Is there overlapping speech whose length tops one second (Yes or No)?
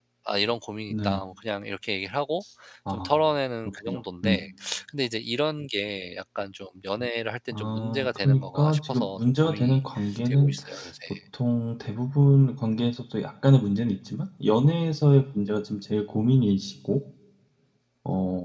Yes